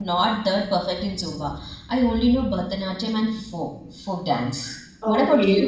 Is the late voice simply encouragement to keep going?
No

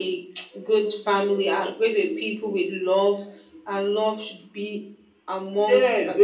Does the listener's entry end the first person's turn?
Yes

